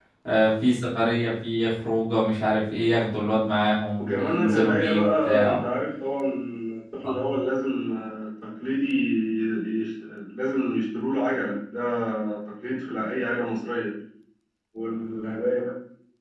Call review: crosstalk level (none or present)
present